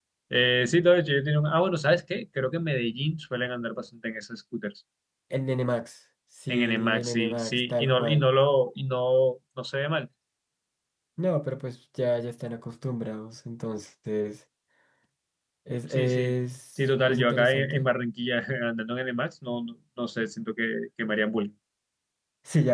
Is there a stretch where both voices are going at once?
Yes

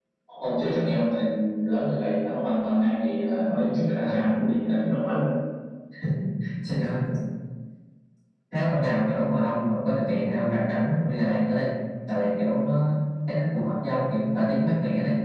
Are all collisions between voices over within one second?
Yes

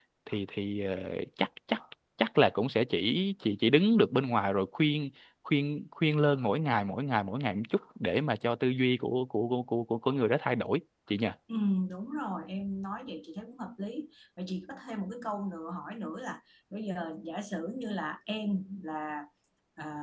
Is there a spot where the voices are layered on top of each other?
No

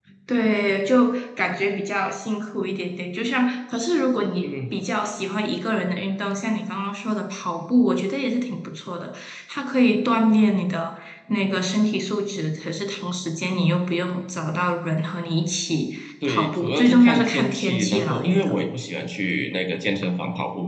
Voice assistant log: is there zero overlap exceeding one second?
No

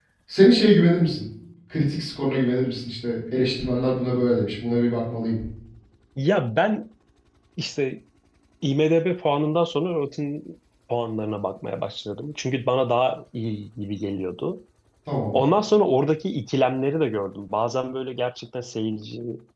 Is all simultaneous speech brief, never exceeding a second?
Yes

